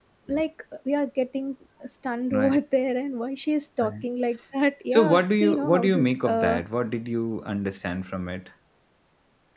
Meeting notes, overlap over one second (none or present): present